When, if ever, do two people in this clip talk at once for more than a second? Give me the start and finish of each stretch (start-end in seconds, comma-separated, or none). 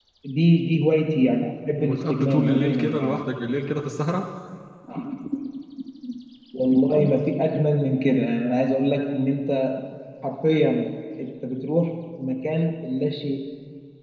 1.8-3.2